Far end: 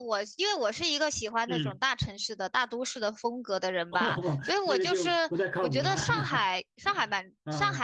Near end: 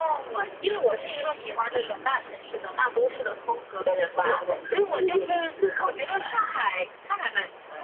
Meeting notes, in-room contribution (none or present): present